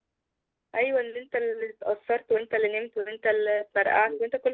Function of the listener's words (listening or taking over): taking over